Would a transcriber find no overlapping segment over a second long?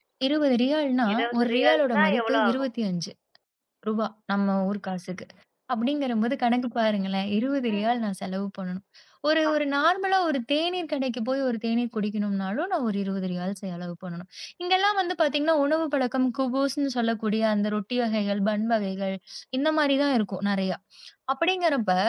No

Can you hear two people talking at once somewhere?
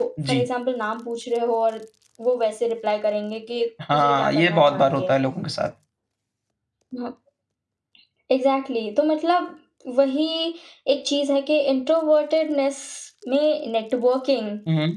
Yes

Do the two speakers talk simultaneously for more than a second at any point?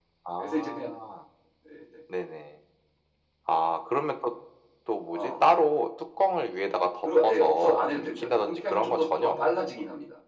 Yes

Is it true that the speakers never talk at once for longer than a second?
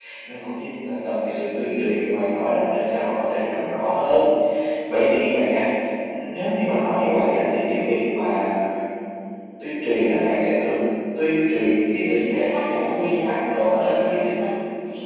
No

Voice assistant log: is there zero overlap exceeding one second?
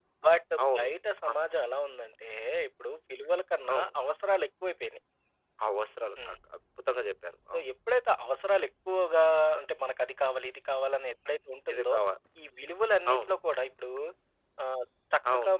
Yes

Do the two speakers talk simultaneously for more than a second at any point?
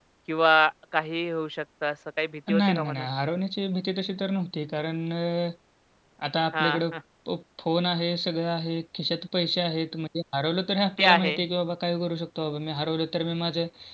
No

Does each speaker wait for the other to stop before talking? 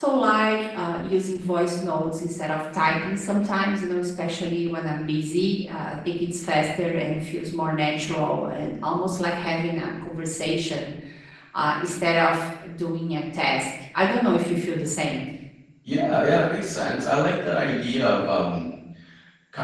Yes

